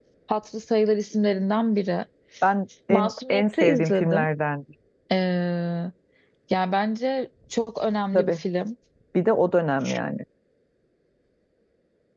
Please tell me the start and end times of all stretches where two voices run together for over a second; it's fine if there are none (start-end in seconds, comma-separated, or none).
2.9-4.3